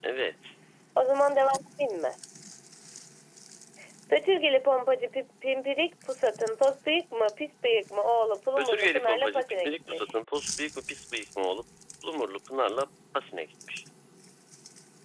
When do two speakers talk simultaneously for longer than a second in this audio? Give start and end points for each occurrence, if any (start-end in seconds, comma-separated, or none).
8.6-10.1